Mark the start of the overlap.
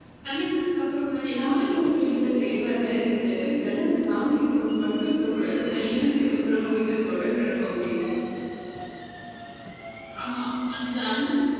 1.3 s

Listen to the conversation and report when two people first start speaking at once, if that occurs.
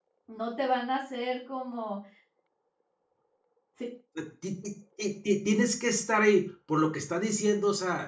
none

